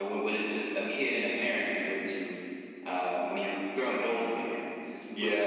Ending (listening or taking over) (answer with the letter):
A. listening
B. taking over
B